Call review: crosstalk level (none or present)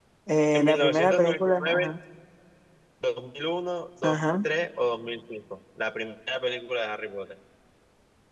present